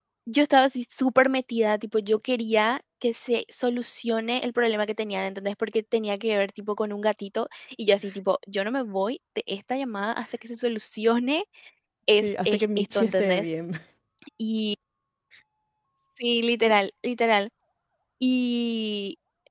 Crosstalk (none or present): present